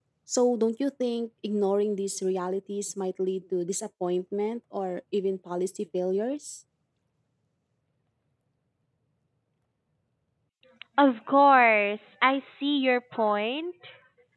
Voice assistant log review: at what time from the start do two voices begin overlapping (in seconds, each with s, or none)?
none